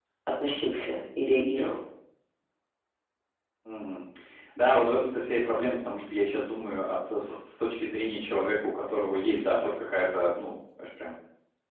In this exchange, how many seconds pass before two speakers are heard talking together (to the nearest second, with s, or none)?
none